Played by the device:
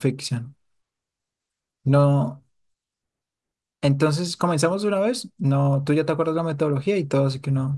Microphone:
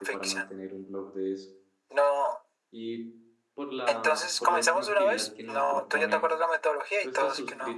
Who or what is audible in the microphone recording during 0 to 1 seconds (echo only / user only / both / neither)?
both